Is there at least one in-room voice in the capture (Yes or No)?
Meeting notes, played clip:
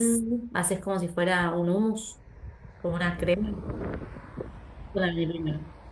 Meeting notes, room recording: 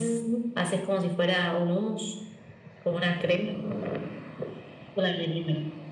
No